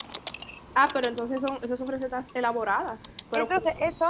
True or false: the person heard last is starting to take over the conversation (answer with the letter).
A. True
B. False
A